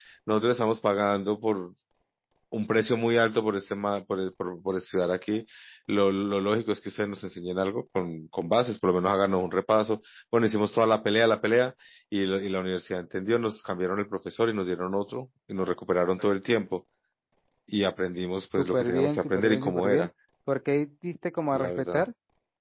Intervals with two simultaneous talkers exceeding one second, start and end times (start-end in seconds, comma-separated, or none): 18.6-20.1